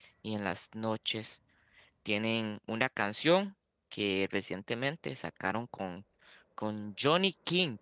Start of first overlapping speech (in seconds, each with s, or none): none